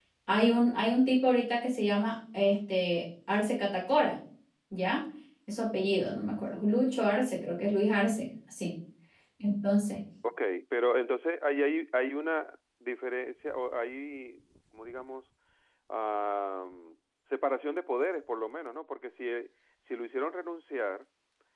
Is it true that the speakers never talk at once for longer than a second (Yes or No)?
Yes